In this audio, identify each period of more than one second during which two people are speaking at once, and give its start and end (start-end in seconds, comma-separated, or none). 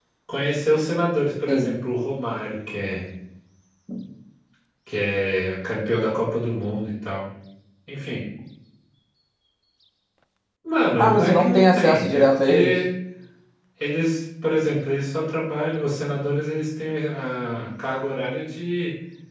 11.0-12.8